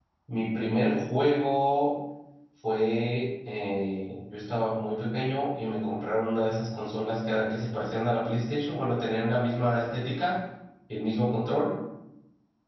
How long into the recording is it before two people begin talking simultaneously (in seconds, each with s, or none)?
none